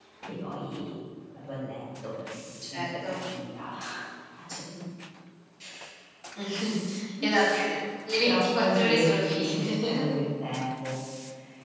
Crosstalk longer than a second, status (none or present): present